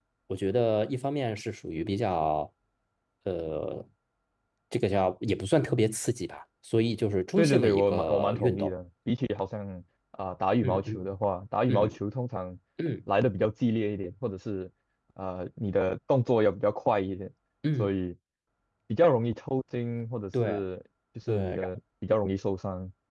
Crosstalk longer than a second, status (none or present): present